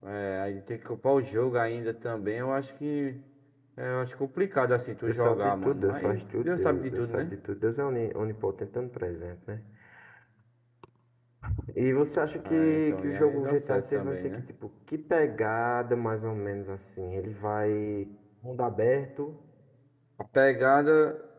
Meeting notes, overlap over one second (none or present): present